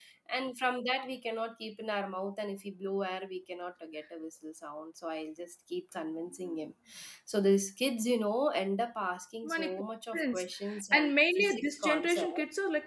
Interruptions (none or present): present